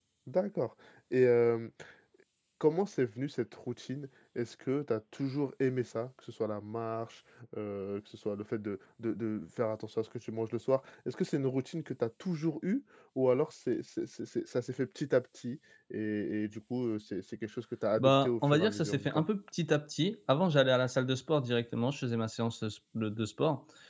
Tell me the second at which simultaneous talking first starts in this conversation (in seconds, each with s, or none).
18.0 s